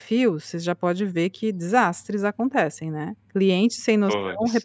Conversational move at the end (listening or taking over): listening